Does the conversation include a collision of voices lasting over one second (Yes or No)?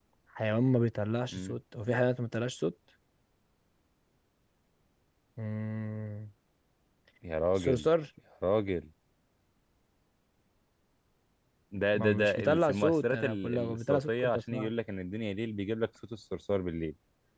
Yes